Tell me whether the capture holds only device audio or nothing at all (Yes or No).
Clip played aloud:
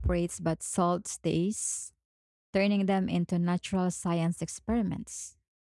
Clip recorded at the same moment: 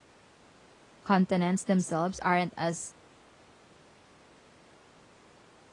No